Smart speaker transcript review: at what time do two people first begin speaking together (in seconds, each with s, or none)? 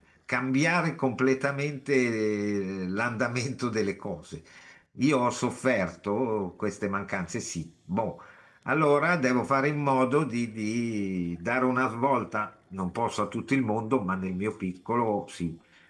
none